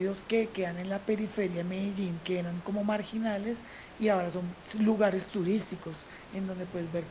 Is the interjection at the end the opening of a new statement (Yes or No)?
No